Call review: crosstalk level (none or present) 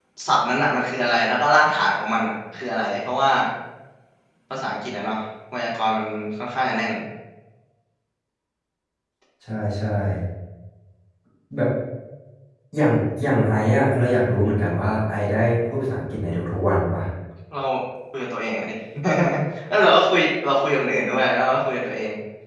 none